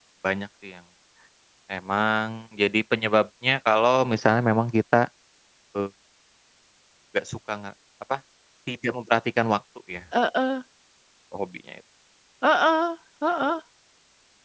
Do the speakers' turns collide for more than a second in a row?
No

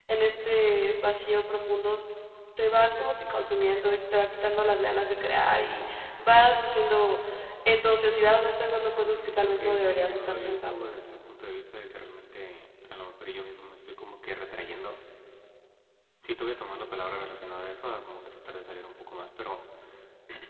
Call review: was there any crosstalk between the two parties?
Yes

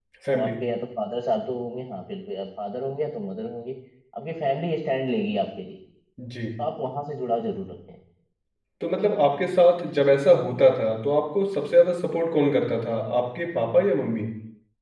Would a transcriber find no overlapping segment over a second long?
Yes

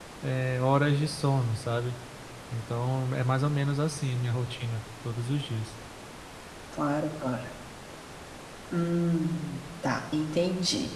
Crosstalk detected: No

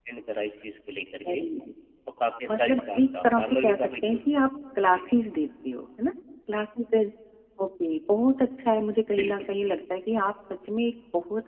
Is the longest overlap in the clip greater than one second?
Yes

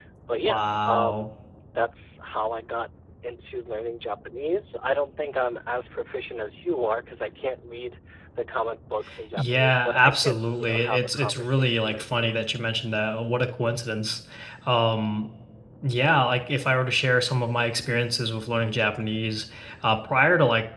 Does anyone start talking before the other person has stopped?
Yes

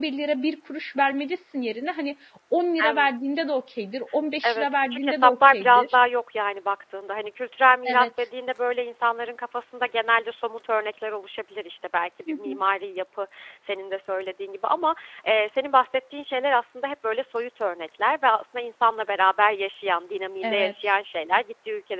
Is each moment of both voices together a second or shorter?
No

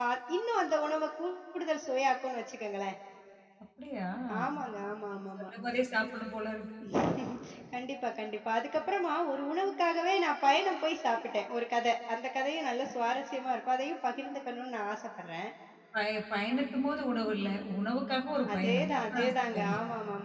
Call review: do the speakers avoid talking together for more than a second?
No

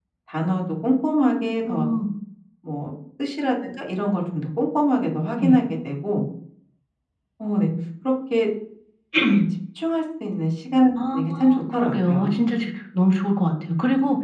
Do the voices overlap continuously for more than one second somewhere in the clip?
Yes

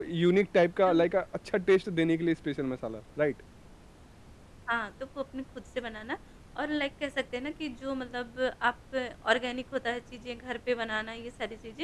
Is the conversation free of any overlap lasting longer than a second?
Yes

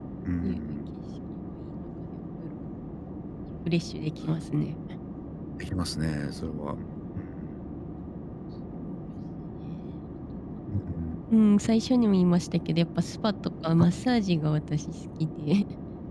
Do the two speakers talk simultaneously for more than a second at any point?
No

